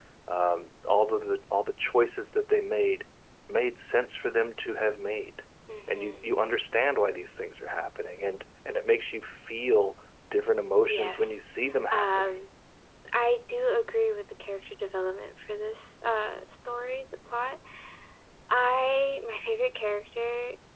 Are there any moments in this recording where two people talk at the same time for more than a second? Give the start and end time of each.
none

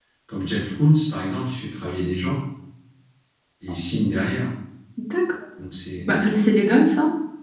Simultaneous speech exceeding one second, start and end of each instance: none

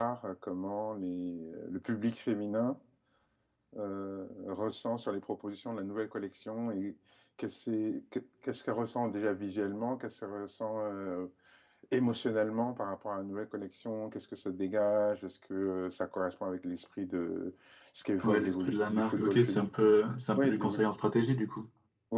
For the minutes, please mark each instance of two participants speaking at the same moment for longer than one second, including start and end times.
18.2-19.7

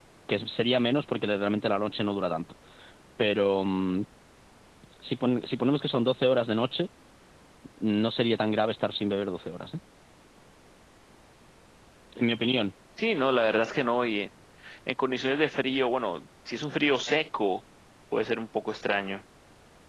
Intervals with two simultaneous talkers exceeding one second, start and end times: none

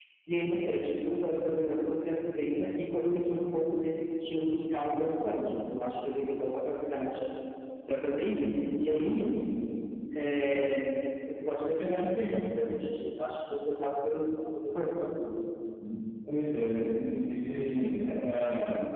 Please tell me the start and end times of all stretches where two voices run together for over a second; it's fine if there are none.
none

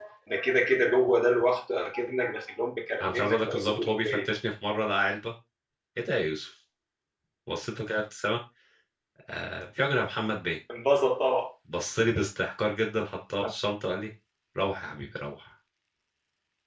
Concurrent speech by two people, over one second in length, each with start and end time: 3.0-4.3

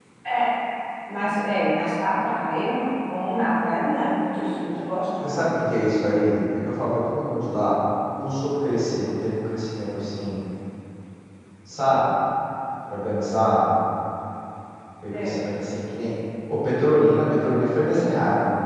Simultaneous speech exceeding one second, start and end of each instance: none

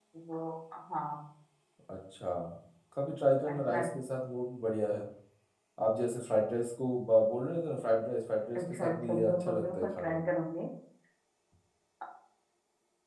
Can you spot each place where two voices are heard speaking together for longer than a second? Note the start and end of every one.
8.6-10.2

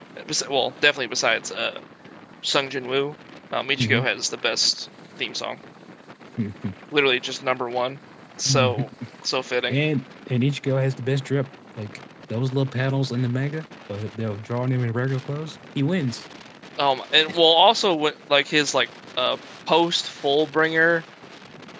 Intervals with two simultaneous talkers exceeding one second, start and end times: none

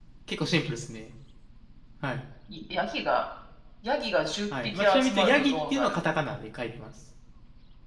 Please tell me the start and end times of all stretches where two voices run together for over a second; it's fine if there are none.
4.6-6.0

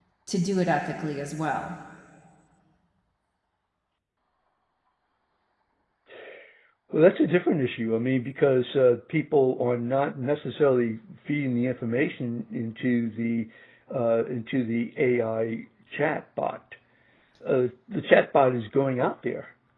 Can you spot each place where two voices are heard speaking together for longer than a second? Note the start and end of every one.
none

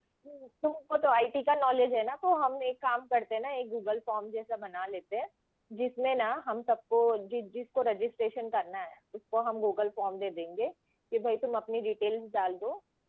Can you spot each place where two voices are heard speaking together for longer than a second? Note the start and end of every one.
none

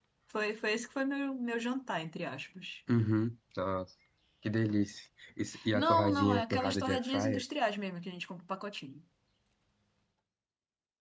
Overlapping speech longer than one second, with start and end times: 5.7-7.4

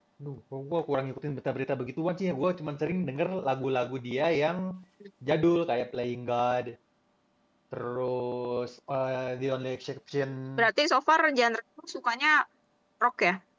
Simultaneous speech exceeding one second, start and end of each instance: none

